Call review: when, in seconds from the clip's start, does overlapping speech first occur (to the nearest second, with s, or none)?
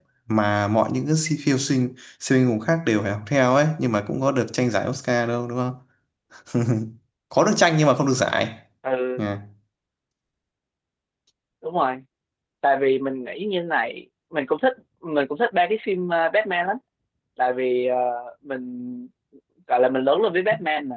none